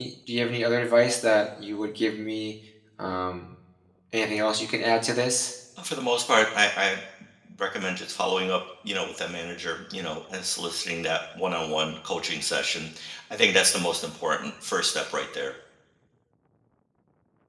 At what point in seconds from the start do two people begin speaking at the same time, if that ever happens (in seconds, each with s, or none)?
none